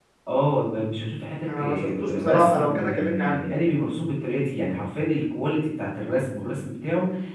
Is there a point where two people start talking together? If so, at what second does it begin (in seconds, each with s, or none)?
1.5 s